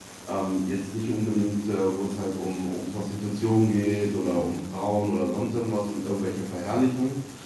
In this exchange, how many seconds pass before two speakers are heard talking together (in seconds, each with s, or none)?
none